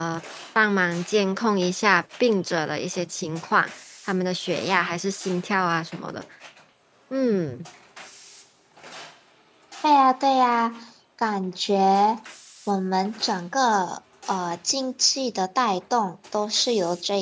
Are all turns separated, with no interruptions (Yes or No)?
Yes